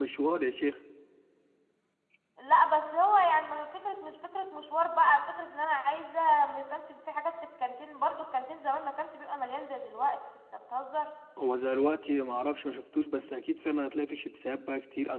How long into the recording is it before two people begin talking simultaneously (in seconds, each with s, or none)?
none